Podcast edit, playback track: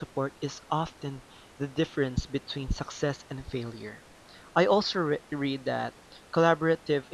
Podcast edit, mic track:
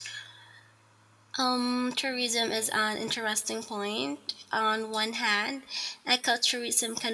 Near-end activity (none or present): present